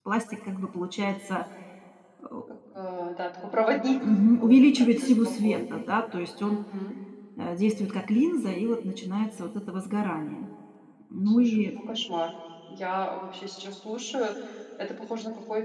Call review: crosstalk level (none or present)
present